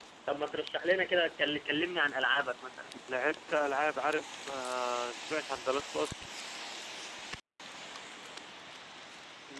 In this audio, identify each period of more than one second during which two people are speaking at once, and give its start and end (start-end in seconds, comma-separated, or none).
none